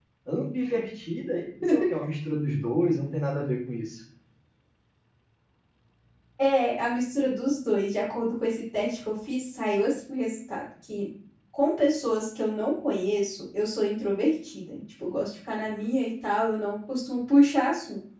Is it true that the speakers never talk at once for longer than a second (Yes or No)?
Yes